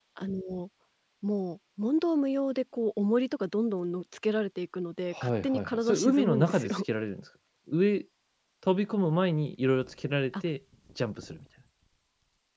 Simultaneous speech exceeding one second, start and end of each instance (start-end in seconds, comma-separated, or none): 5.1-6.8